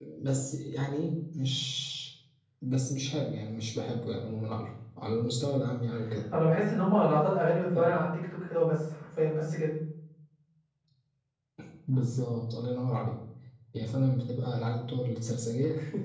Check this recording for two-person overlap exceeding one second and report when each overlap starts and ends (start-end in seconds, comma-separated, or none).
none